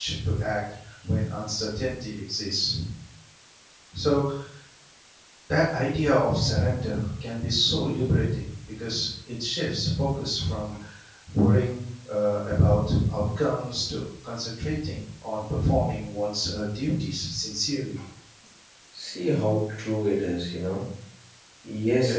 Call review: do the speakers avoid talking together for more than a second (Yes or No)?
Yes